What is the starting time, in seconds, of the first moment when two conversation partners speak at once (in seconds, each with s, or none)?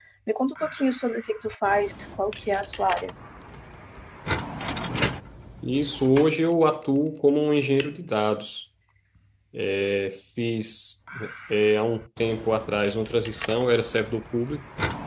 none